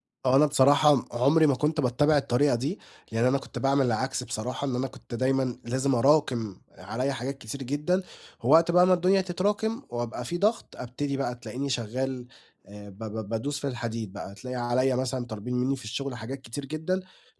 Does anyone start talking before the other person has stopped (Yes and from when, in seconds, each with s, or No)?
No